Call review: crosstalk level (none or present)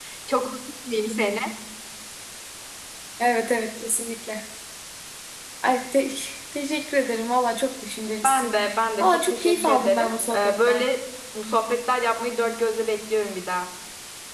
present